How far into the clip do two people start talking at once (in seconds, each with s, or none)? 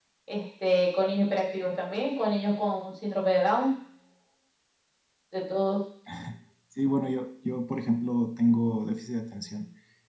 none